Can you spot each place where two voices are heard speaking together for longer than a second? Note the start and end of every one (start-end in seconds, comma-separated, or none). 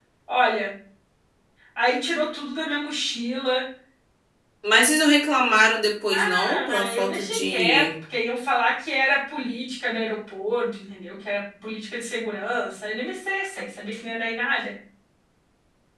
6.1-7.9